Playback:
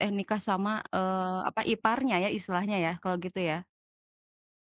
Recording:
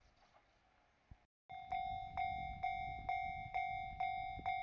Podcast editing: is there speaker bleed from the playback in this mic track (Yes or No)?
No